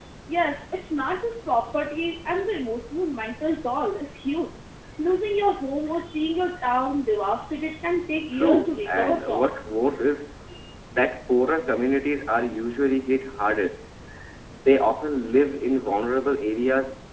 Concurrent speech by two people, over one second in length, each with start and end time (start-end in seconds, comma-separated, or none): 8.3-9.6